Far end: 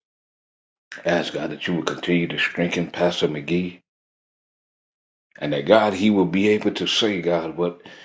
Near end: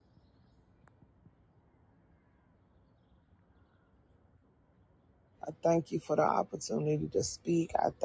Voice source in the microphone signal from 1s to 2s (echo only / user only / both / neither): neither